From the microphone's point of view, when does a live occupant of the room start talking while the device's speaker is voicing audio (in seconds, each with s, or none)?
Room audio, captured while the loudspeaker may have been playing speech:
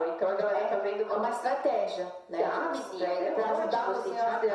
none